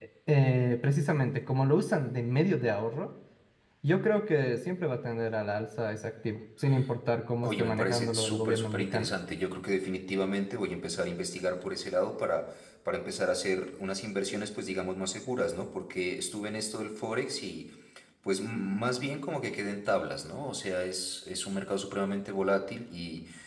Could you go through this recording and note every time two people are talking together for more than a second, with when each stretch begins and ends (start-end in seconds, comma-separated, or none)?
7.4-9.1